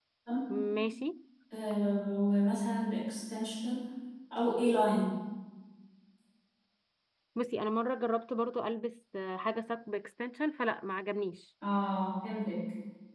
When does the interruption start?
none

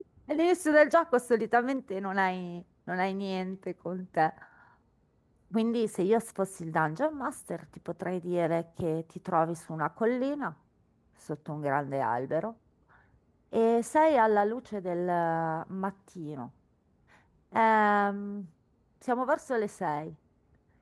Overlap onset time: none

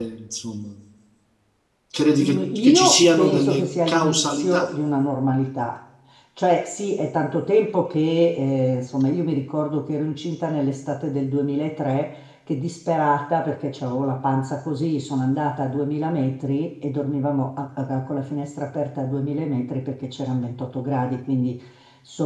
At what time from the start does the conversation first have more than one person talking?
2 s

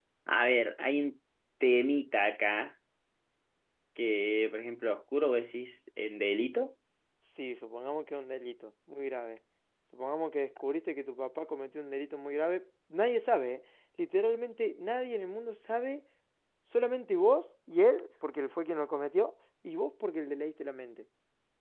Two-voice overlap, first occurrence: none

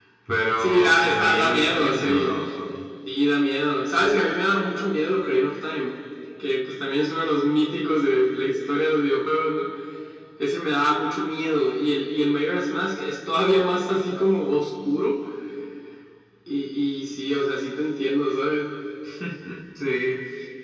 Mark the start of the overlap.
1 s

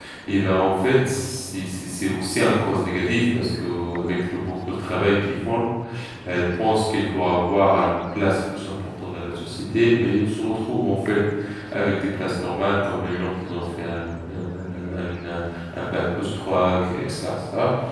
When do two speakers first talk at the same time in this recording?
none

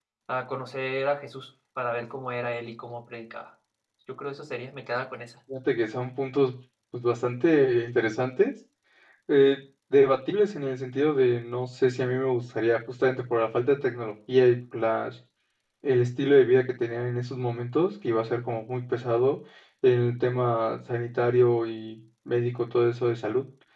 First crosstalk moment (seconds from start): none

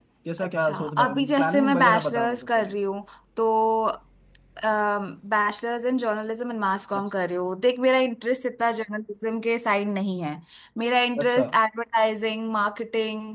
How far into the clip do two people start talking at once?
1 s

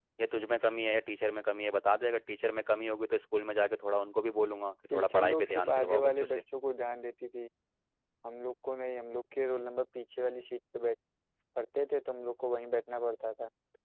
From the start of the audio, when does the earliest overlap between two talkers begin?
5 s

